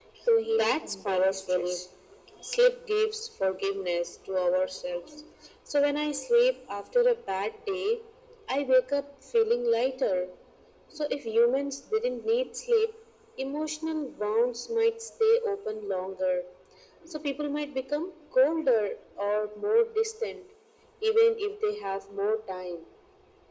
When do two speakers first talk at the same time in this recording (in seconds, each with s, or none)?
0.5 s